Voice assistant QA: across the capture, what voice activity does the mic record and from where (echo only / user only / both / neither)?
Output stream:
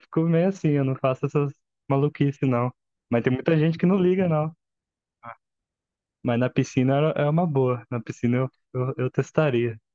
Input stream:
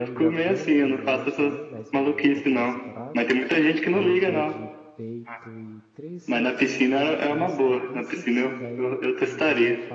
both